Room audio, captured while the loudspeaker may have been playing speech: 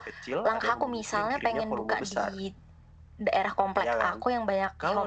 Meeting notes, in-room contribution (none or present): none